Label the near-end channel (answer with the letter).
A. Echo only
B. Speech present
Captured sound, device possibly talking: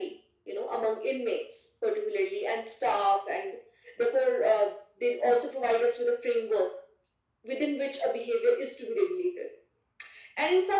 A